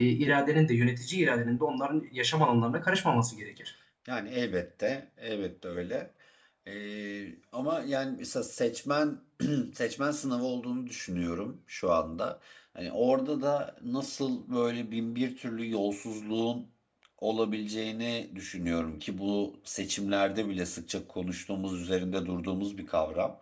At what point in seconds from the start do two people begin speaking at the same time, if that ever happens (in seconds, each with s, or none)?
none